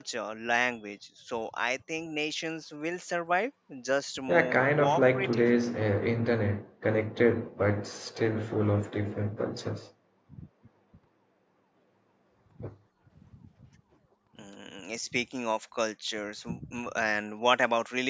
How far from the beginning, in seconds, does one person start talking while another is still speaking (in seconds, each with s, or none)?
4.3 s